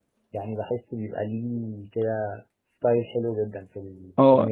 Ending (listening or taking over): taking over